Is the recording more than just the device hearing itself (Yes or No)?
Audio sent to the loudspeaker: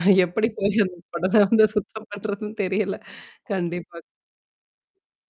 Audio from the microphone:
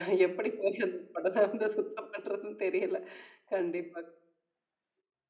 No